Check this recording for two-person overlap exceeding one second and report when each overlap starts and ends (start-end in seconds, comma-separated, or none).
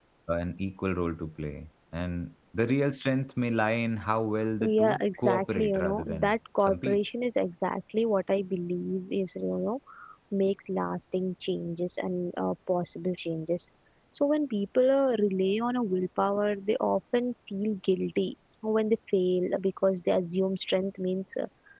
4.6-7.0